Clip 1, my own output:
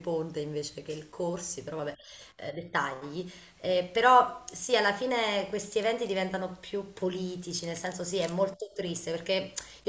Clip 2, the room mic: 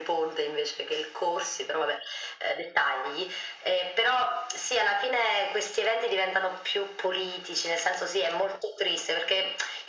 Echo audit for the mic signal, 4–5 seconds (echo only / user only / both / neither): echo only